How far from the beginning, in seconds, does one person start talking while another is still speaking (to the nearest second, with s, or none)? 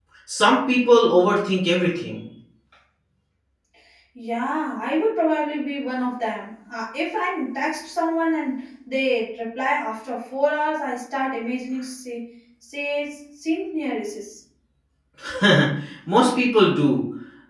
none